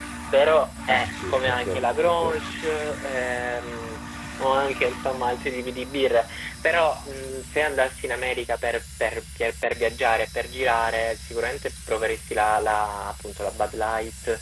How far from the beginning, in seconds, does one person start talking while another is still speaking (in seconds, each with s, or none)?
0.9 s